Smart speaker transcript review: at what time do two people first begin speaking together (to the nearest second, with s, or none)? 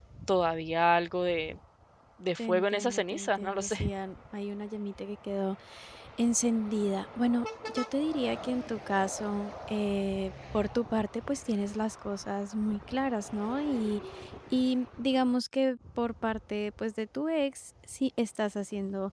2 s